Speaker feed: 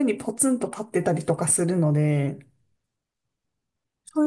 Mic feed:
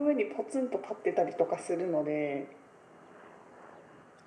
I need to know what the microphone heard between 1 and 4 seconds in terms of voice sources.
echo only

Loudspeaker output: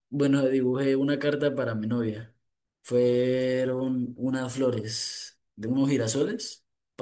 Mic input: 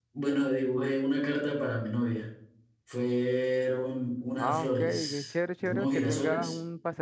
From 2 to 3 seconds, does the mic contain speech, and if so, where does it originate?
echo only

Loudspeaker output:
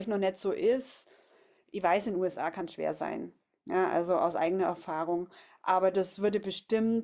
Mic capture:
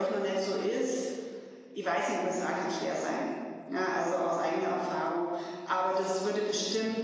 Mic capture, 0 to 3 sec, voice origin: echo only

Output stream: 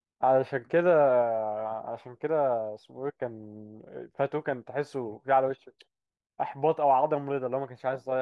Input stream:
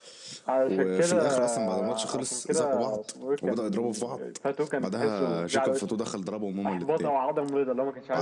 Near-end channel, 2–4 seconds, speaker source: both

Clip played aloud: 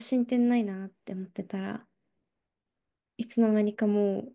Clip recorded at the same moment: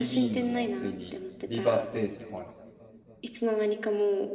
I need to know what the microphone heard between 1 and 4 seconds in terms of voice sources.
both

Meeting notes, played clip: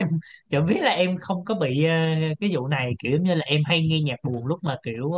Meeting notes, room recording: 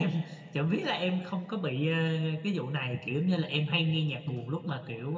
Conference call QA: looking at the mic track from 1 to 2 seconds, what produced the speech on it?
echo only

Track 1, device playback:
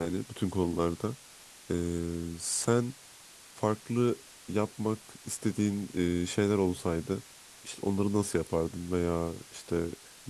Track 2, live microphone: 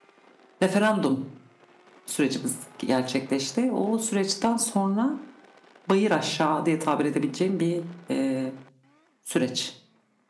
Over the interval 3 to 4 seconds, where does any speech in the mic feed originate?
user only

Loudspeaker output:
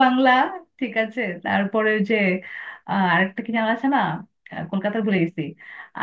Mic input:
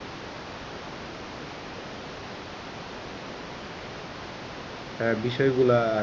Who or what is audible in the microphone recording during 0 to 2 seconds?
neither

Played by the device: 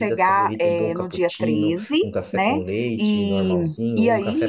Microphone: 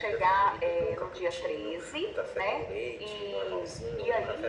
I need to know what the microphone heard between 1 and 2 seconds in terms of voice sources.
echo only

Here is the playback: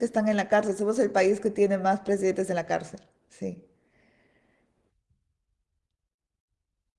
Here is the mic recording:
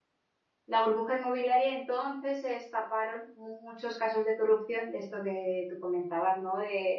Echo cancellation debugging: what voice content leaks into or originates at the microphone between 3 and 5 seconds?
user only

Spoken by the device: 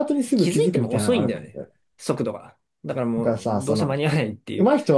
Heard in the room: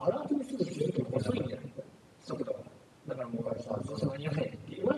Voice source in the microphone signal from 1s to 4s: echo only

